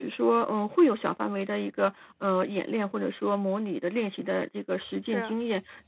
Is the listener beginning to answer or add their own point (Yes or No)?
No